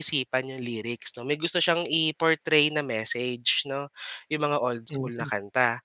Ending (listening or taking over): listening